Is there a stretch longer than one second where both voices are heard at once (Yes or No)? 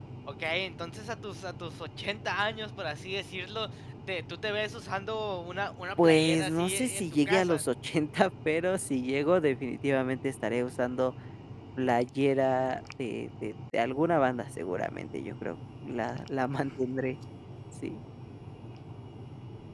Yes